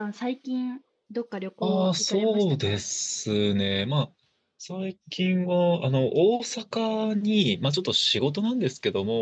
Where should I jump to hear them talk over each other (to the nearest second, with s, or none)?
2 s